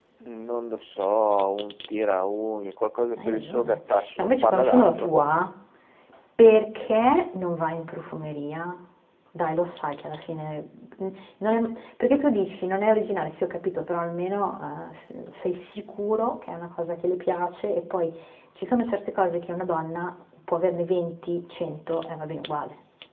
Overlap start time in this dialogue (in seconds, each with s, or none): 3.2 s